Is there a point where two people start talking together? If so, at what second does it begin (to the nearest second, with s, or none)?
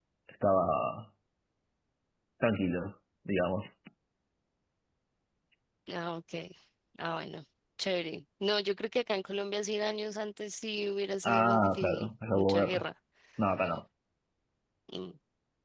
11 s